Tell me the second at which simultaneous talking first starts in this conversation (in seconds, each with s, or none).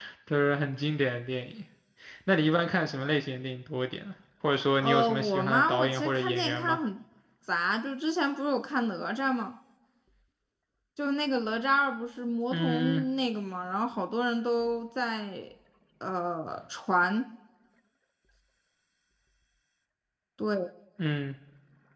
4.8 s